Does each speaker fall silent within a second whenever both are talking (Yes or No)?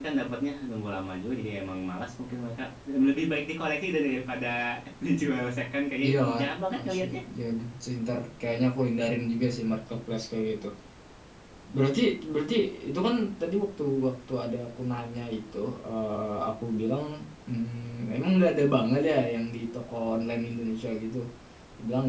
Yes